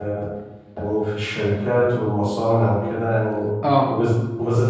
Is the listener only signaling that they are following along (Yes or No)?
Yes